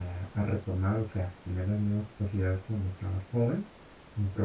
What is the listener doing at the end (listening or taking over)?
listening